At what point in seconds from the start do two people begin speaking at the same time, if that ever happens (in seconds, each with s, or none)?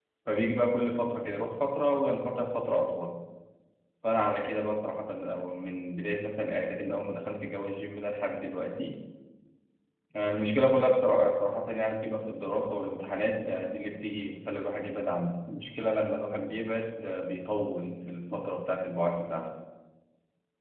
none